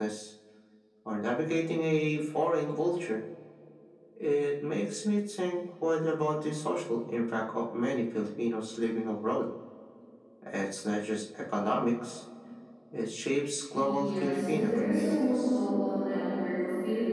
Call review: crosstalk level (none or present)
present